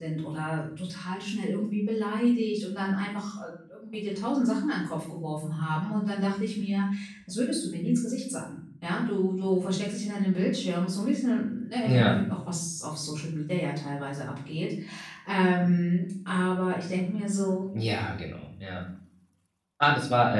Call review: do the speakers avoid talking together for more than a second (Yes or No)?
Yes